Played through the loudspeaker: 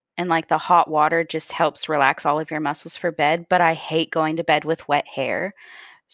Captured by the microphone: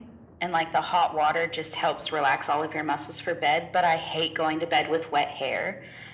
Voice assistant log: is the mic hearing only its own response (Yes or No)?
Yes